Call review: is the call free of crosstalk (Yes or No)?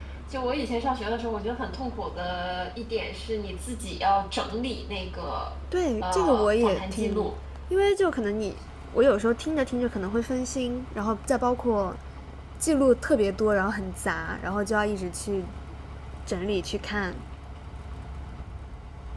No